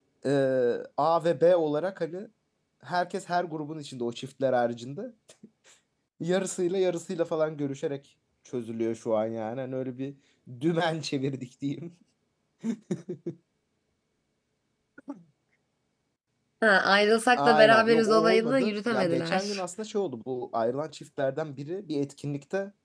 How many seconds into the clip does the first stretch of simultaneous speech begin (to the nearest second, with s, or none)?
17 s